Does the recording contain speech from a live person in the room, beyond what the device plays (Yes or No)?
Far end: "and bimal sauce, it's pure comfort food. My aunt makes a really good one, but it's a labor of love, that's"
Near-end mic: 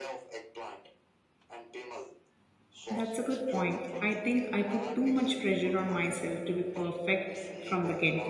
Yes